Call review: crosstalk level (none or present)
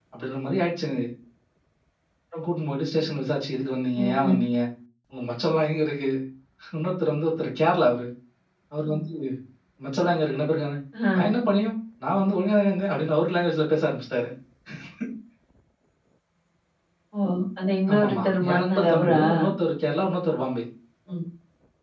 present